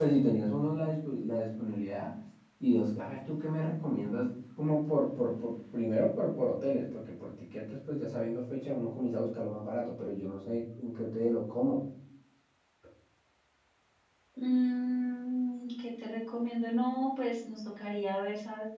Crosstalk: none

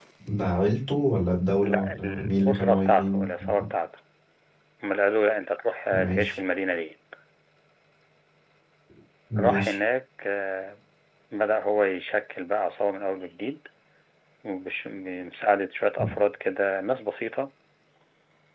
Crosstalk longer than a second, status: present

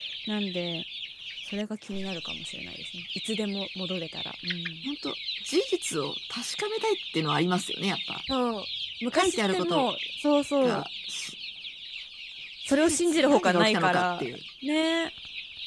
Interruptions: present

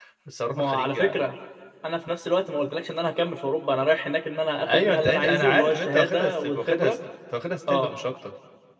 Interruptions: present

